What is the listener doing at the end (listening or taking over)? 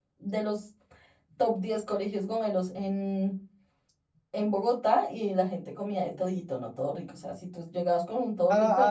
taking over